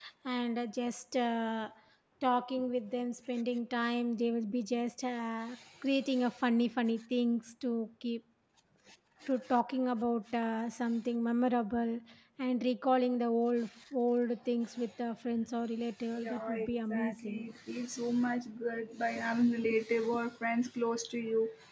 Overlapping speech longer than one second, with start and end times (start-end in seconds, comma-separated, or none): 16.2-17.4